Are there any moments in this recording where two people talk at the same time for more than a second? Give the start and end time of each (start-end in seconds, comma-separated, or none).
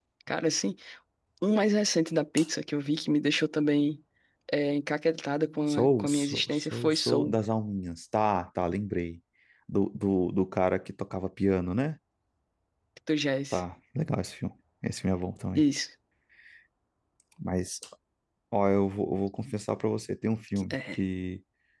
5.7-7.3